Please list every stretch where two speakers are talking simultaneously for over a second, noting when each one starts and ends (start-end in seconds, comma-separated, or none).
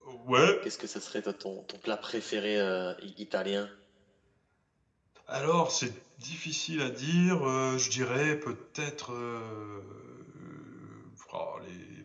none